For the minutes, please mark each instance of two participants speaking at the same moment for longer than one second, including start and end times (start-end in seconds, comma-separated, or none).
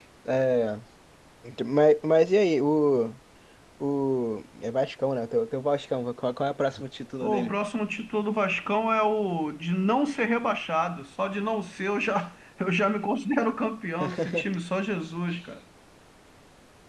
none